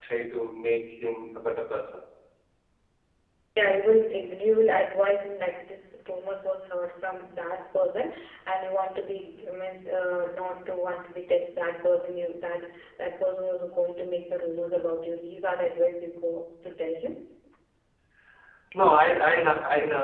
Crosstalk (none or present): none